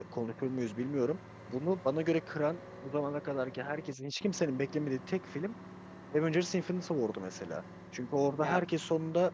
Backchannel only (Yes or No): Yes